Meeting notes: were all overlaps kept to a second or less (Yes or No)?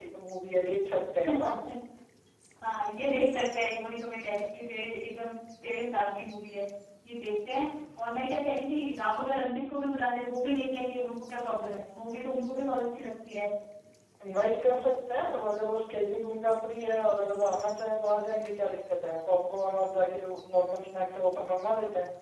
Yes